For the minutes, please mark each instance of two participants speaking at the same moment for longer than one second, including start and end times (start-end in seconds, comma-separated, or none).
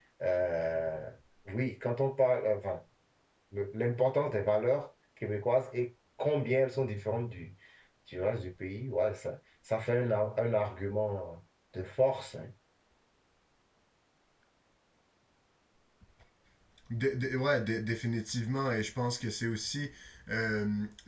none